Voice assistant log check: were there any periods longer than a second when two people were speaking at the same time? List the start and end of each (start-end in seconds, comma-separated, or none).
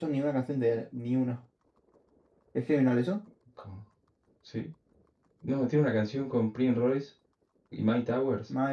none